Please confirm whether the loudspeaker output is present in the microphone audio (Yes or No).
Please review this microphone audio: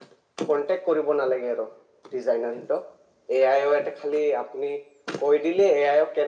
Yes